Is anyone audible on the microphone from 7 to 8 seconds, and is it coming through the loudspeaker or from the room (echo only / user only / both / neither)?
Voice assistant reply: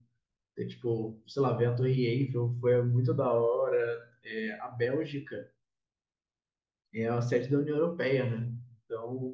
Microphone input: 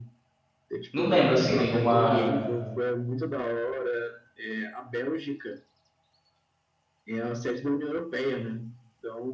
echo only